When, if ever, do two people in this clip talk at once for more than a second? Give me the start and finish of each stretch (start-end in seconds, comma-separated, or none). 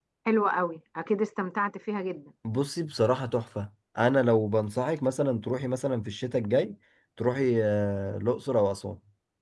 none